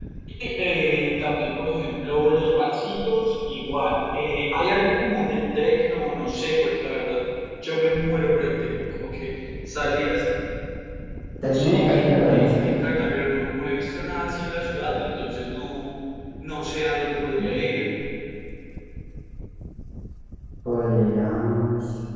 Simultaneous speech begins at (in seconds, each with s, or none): 11.5 s